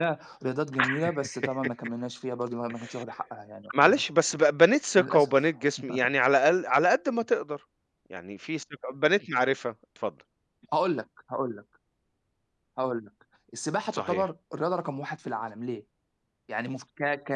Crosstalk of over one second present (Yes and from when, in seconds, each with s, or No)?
No